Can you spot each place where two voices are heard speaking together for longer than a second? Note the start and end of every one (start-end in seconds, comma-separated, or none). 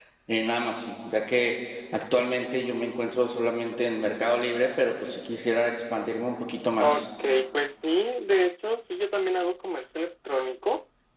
none